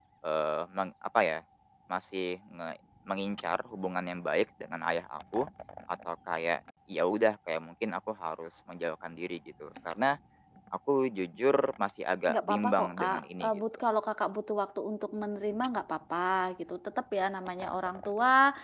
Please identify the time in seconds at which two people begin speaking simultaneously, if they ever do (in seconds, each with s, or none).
12.3 s